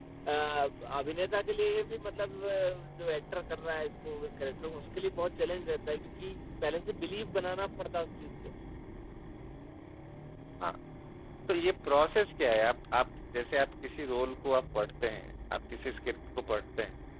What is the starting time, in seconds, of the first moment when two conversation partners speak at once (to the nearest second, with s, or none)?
none